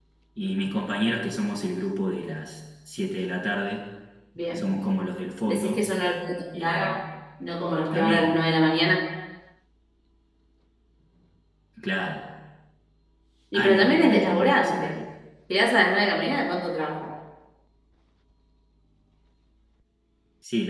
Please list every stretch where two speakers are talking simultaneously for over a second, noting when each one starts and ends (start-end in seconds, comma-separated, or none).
13.5-14.9